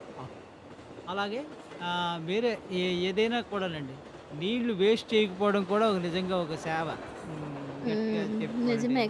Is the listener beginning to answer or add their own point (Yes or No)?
Yes